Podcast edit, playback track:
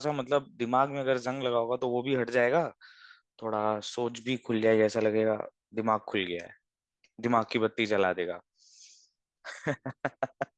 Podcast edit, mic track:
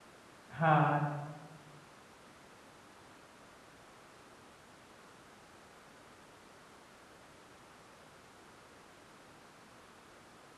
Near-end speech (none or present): present